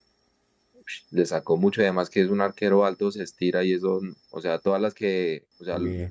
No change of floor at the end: Yes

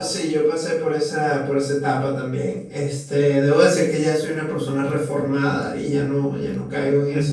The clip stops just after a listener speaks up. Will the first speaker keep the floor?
No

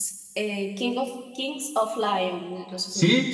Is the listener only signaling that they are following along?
No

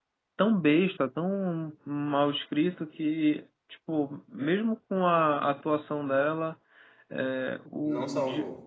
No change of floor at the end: Yes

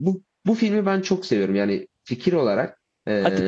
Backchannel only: Yes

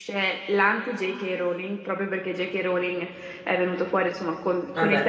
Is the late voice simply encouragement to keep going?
Yes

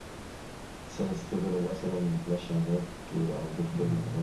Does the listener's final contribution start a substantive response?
Yes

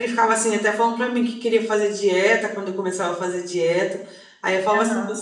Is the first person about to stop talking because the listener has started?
No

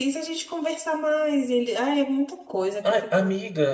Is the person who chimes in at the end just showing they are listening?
No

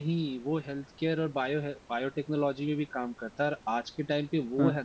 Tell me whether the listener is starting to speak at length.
No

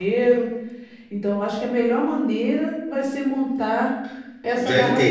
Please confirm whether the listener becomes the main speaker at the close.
Yes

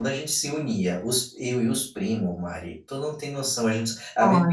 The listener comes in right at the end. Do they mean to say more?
No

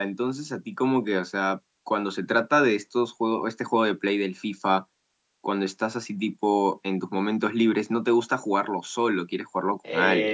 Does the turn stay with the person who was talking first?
No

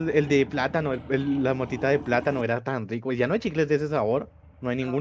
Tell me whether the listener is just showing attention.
No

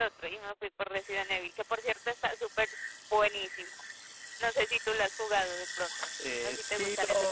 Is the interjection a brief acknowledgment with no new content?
No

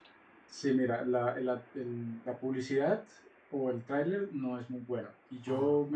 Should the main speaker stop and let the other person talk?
No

